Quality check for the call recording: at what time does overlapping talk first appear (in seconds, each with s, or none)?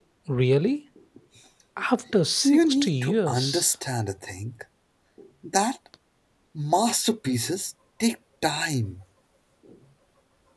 2.4 s